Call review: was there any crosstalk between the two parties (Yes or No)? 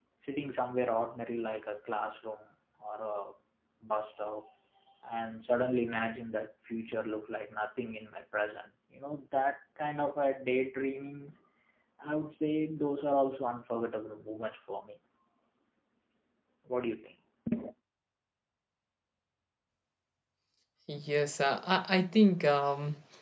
No